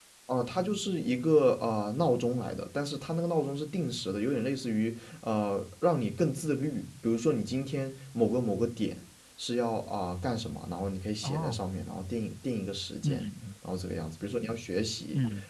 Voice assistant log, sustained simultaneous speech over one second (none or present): none